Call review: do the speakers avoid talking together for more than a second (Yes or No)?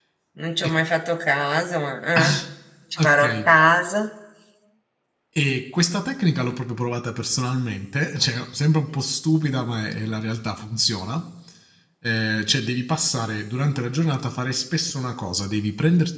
Yes